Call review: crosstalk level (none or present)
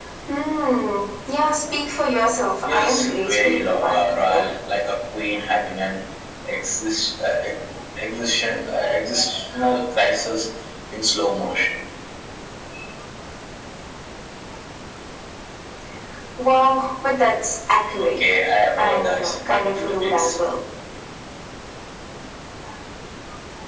present